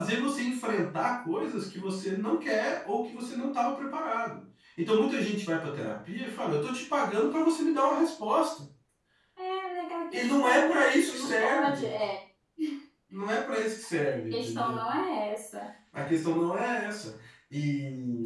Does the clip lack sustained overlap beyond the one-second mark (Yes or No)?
No